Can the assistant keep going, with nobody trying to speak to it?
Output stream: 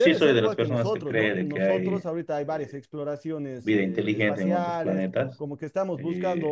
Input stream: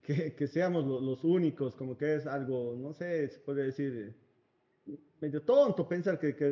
No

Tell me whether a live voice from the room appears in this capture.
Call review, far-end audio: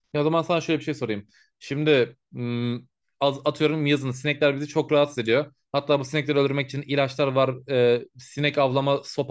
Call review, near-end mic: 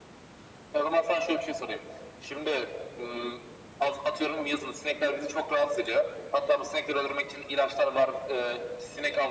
No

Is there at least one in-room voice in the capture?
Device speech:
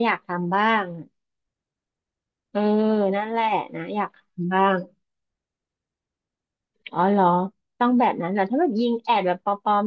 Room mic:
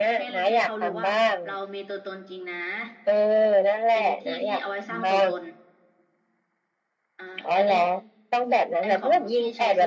Yes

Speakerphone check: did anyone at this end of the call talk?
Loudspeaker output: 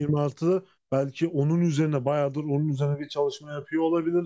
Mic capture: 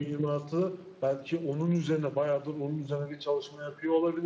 No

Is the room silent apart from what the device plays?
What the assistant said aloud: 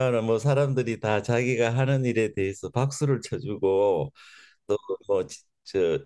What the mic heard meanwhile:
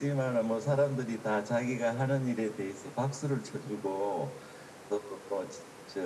Yes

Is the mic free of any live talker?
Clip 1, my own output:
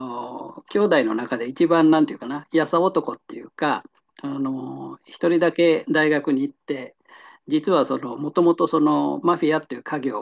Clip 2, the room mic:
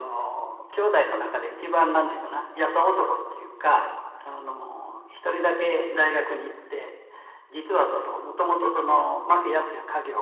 Yes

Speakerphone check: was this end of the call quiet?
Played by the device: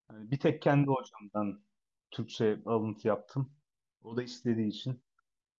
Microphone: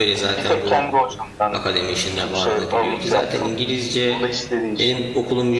No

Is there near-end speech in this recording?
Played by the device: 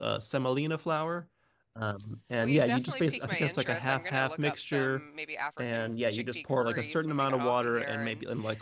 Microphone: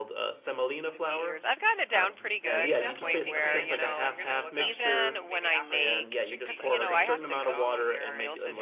Yes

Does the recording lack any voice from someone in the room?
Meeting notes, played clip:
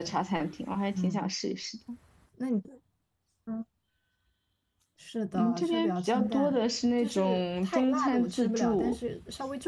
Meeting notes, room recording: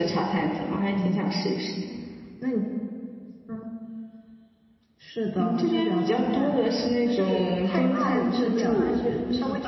No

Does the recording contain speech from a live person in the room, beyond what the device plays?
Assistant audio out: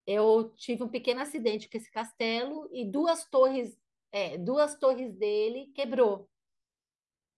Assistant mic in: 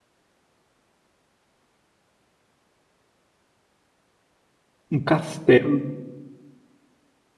Yes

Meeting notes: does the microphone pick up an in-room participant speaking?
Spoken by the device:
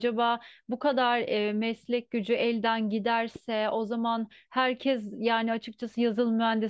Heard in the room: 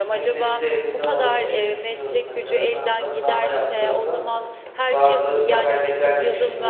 Yes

